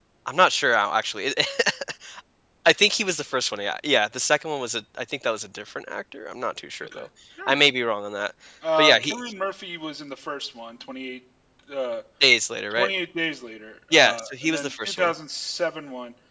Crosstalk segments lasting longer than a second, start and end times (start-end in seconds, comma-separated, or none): 13.9-15.1